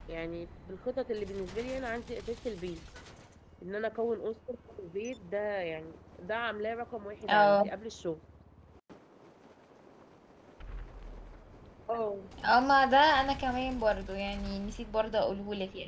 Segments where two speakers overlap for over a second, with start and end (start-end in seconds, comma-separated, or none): none